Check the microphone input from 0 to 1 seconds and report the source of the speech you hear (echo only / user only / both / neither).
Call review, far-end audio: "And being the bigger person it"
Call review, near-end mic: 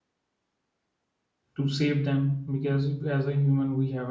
neither